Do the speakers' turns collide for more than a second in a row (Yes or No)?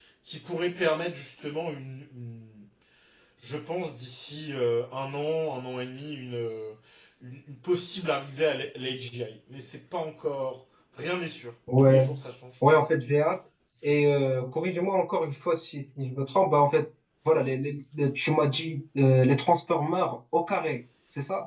No